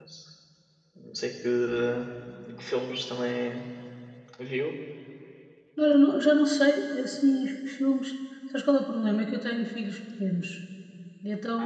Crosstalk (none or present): none